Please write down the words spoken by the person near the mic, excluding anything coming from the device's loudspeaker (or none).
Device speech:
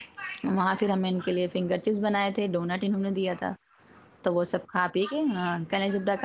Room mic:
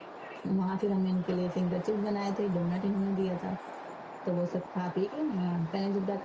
none